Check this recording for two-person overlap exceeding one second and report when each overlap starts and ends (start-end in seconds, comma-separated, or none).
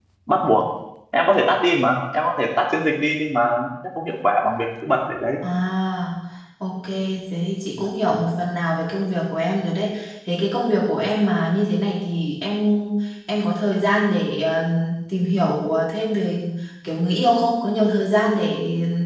none